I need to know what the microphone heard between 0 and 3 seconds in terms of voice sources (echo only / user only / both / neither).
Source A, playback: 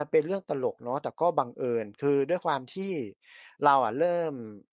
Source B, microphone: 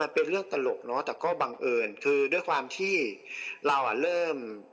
echo only